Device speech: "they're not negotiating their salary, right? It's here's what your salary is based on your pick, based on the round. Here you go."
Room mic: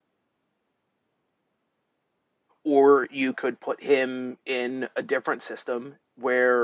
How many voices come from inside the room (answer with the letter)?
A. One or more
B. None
A